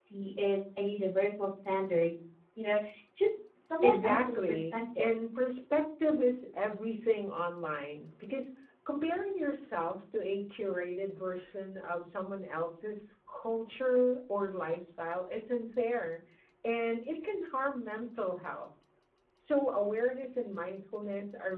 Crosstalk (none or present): present